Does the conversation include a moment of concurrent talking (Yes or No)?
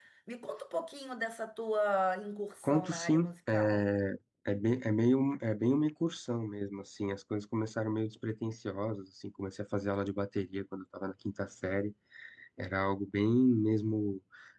Yes